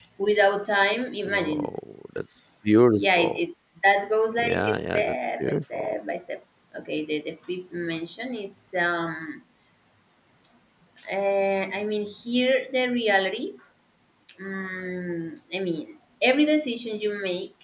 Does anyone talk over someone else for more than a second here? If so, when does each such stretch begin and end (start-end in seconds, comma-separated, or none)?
4.4-6.0